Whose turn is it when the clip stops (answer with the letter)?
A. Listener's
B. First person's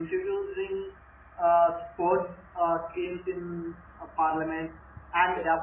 B